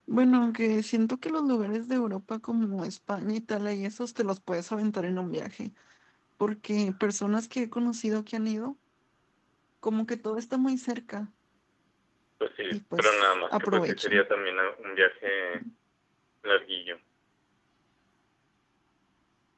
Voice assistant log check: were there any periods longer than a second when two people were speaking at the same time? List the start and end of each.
12.7-14.2

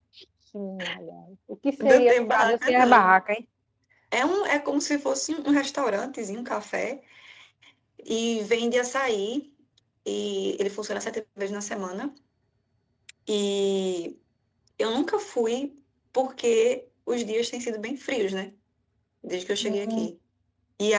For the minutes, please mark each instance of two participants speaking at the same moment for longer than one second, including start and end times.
1.8-3.2

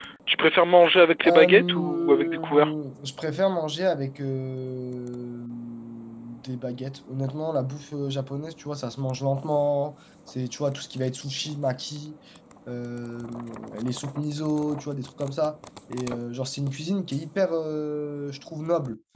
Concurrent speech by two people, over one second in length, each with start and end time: 1.2-2.7

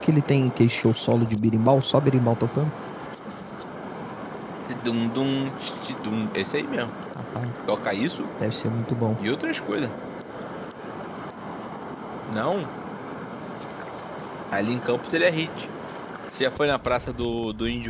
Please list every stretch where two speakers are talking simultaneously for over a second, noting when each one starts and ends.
none

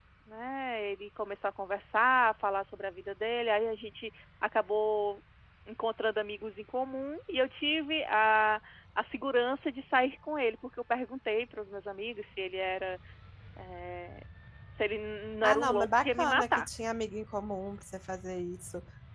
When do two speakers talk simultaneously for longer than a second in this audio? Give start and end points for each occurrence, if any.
15.4-16.7

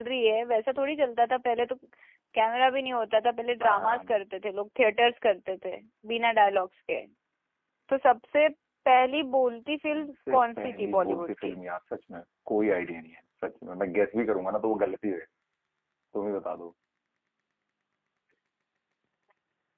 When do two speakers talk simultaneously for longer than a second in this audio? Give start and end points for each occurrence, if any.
9.9-11.5

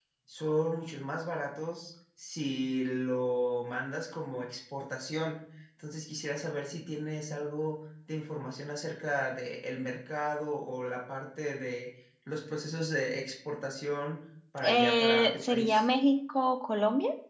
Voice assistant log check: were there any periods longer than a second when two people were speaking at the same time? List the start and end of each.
14.6-15.9

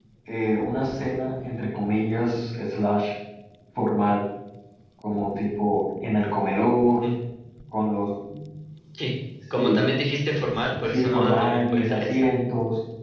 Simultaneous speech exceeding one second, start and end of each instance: 10.8-12.3

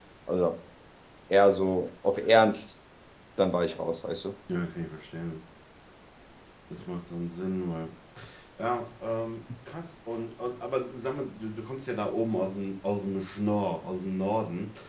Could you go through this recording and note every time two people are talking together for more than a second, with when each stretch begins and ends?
none

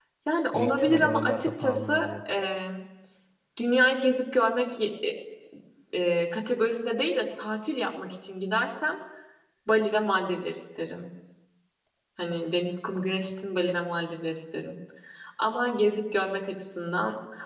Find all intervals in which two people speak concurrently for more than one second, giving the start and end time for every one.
0.5-2.1

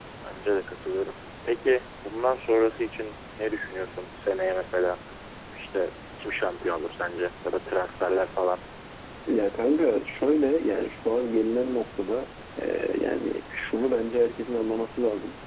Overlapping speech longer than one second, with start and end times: none

